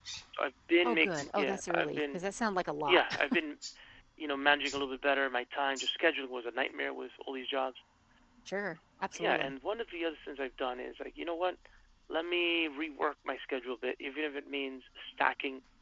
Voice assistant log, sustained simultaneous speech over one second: present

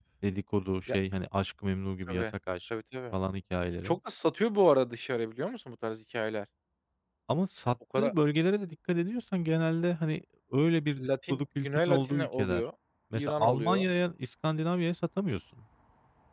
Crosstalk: present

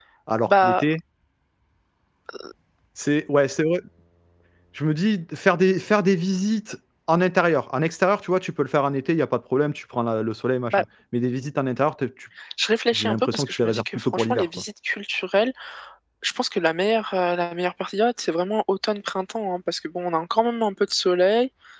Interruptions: present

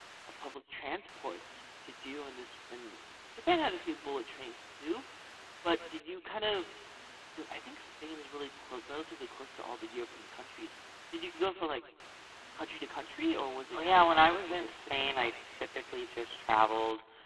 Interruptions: present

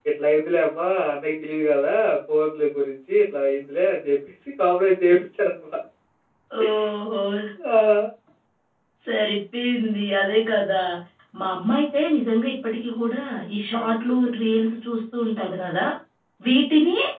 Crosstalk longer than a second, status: none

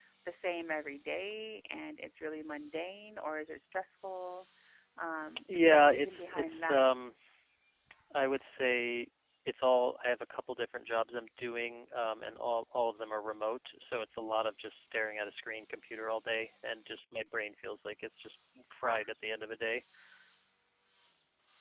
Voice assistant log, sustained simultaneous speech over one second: present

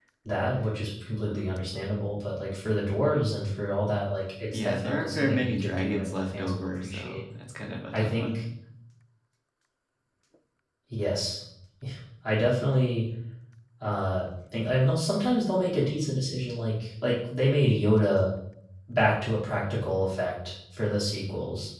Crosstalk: present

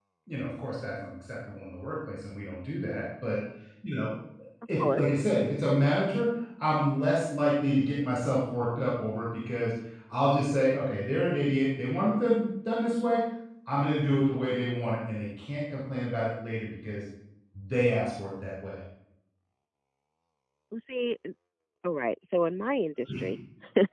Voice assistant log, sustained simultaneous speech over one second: none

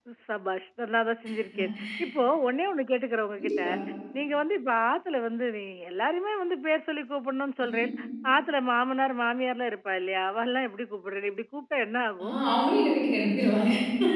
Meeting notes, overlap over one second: none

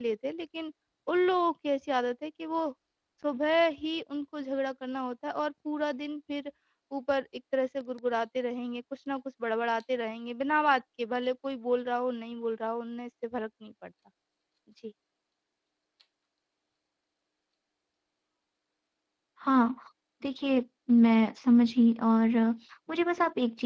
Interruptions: none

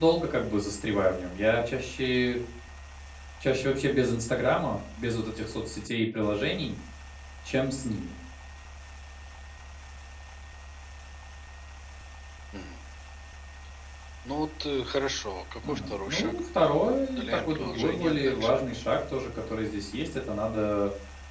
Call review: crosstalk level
present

